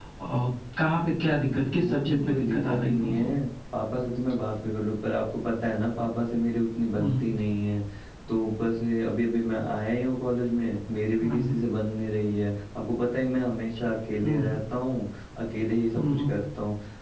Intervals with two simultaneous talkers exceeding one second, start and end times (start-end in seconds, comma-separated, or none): 1.7-3.3